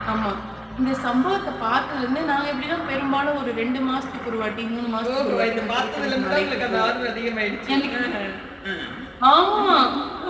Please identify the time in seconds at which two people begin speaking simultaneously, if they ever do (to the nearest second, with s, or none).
5 s